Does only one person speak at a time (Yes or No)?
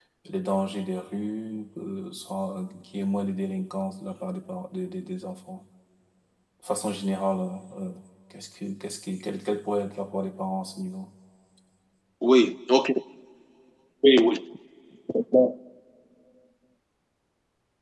Yes